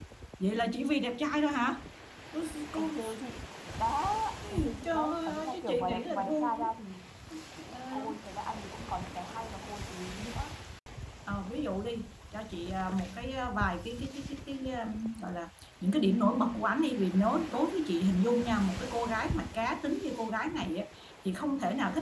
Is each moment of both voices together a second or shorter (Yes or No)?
No